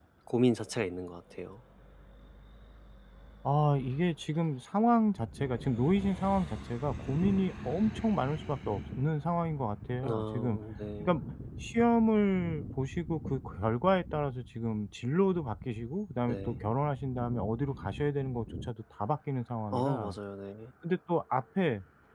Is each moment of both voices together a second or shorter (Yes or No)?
Yes